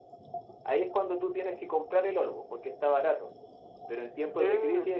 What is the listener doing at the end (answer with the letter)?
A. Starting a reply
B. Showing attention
B